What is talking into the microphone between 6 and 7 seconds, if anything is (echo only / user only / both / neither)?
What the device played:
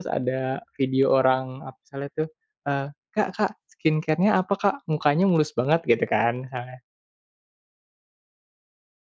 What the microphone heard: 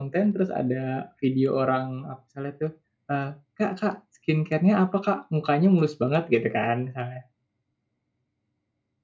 echo only